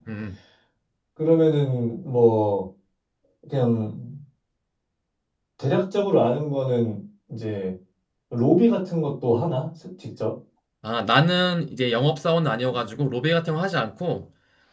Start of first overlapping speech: none

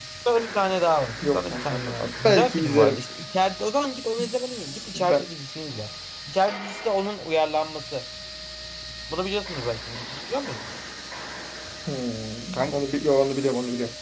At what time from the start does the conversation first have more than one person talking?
1.3 s

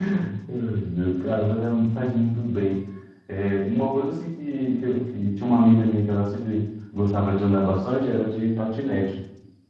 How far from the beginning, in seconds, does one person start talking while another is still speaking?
none

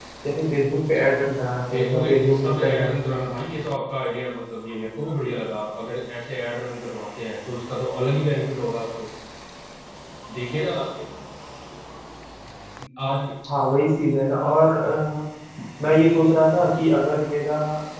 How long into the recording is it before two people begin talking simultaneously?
1.7 s

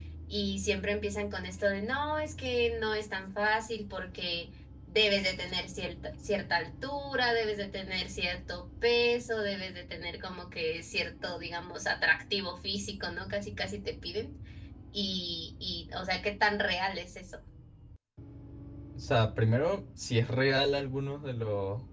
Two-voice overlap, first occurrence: none

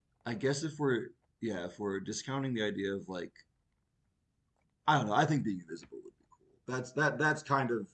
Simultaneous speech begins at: none

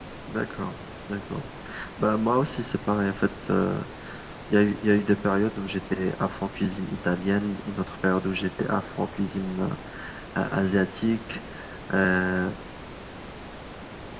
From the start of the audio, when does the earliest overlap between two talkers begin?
none

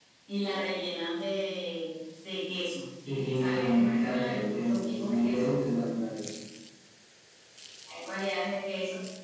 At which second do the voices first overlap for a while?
3.3 s

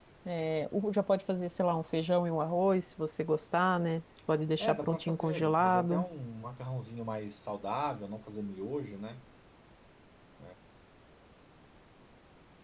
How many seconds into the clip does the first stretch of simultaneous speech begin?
4.6 s

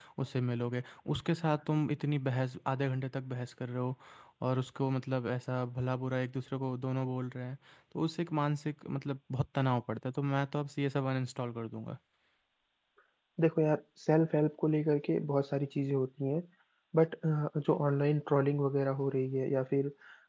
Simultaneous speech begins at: none

